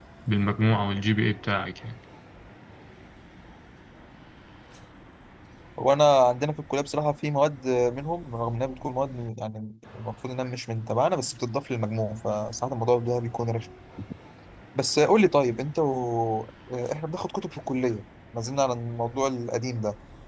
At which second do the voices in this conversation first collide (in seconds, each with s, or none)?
none